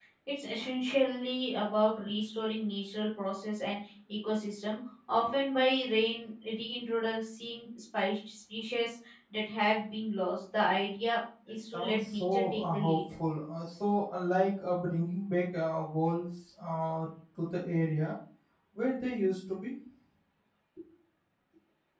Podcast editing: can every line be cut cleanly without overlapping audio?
No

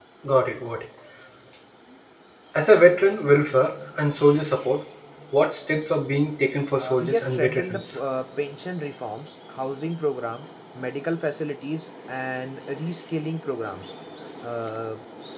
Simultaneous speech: Yes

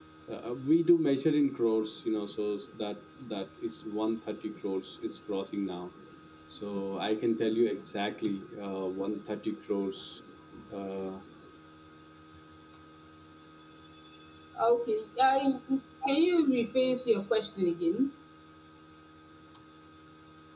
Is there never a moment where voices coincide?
Yes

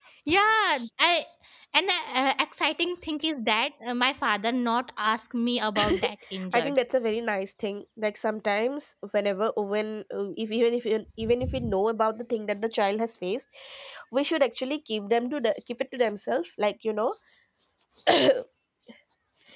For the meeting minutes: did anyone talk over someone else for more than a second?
No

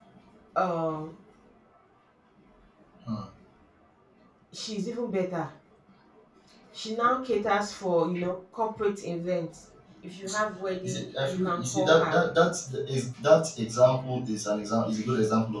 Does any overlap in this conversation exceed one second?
Yes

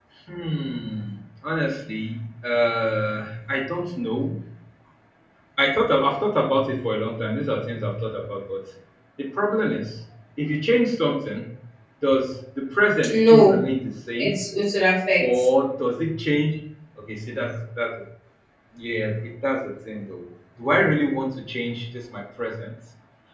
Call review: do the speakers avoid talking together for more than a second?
Yes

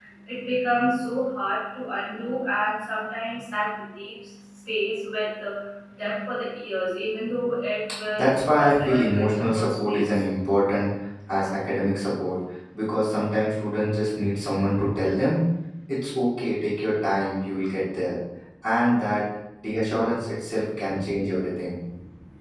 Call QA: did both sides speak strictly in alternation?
No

